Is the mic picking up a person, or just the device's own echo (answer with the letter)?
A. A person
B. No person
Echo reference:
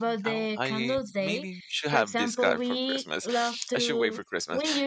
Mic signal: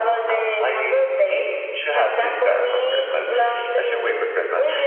B